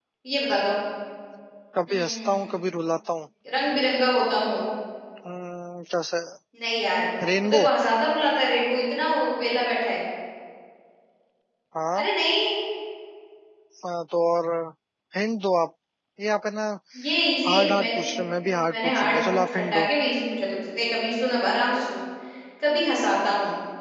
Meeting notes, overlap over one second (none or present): present